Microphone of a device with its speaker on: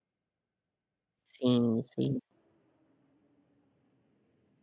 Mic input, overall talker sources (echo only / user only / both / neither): user only